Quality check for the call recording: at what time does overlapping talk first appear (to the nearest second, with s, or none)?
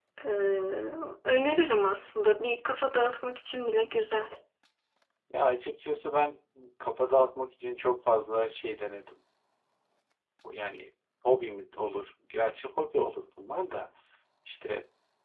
none